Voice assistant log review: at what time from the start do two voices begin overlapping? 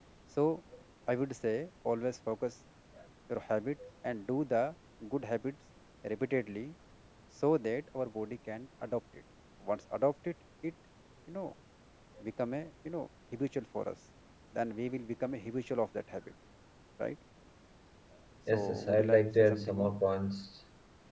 18.5 s

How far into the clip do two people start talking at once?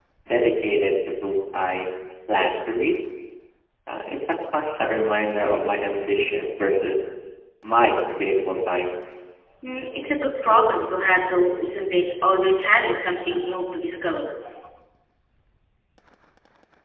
none

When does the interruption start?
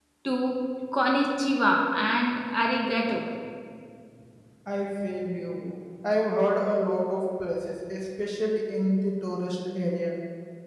none

